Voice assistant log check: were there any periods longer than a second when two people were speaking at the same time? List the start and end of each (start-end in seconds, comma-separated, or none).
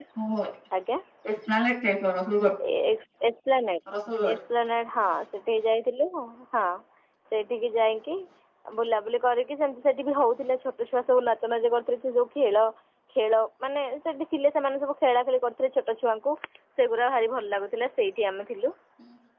none